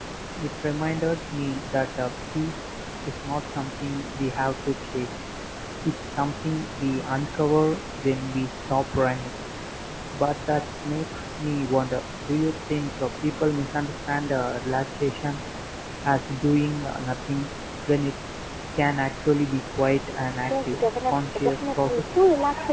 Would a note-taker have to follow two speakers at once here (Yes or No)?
Yes